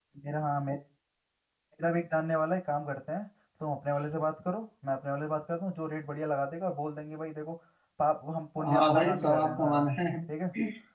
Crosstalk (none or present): present